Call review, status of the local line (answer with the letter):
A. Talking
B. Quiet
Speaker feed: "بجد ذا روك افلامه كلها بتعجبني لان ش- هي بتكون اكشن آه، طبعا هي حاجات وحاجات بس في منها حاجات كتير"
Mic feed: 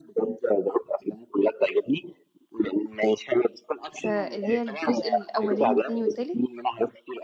A